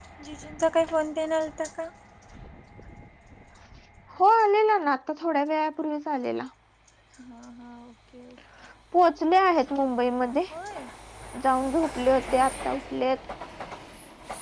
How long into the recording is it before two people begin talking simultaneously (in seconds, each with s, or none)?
none